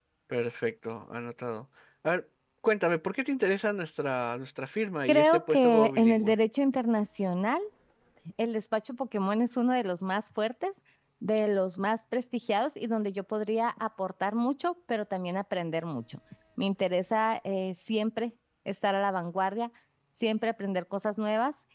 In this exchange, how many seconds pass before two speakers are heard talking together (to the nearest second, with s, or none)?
5 s